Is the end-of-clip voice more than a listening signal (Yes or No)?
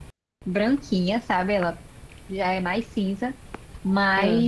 No